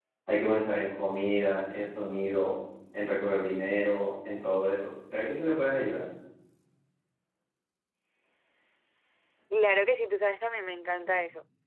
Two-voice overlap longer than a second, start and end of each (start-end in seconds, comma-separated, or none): none